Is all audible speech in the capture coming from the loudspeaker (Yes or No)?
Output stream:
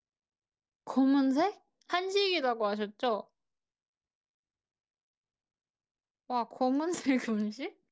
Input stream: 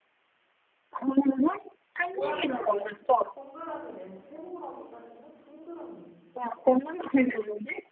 No